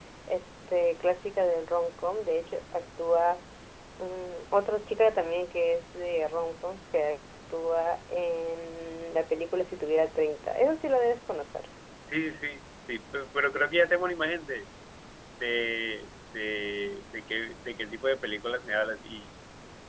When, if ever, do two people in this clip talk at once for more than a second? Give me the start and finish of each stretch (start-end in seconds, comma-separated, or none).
none